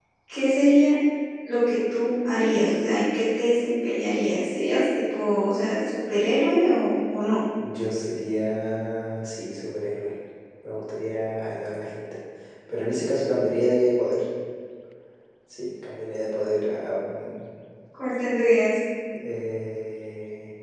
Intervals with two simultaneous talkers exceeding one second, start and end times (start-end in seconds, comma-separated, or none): none